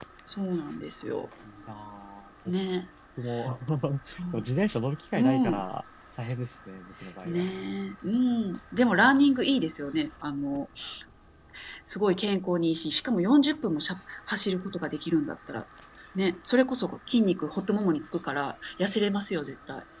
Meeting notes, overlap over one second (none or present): none